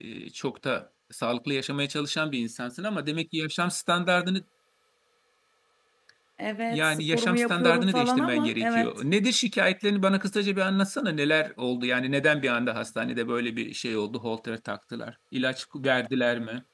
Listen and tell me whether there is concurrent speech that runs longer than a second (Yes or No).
Yes